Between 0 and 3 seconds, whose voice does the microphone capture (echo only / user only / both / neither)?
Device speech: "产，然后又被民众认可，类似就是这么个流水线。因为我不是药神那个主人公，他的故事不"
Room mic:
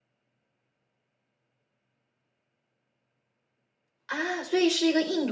neither